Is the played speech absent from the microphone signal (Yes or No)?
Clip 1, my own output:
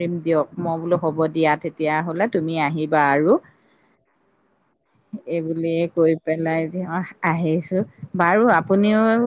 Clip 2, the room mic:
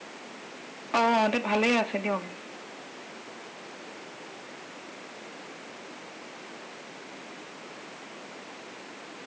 Yes